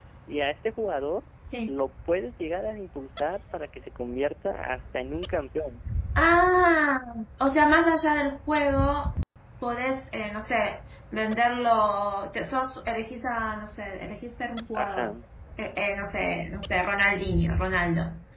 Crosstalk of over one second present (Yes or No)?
No